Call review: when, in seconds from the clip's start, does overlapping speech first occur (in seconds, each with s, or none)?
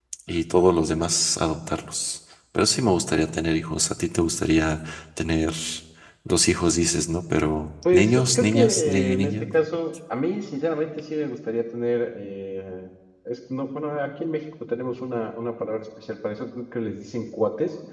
7.8 s